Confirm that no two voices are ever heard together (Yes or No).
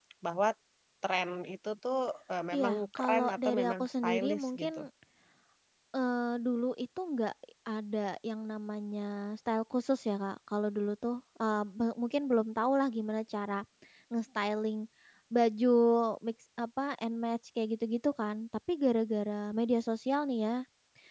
No